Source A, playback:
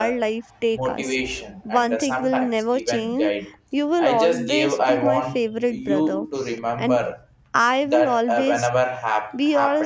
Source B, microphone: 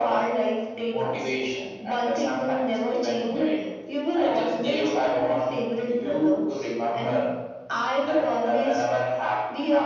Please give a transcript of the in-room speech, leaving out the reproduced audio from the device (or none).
none